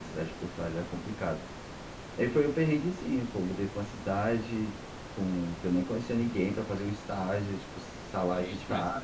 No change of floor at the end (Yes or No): No